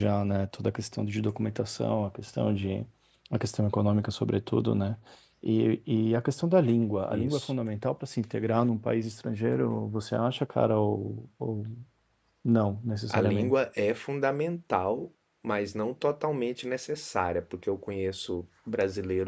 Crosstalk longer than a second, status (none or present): none